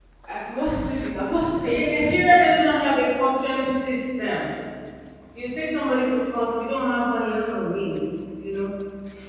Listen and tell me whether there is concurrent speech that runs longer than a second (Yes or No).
No